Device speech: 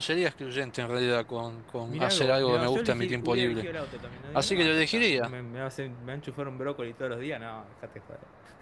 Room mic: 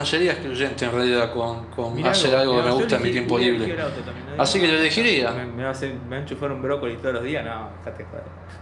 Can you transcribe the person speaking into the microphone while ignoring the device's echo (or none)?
none